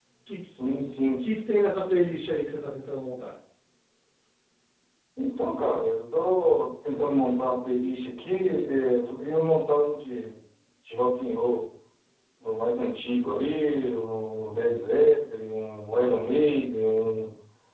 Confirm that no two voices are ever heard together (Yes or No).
Yes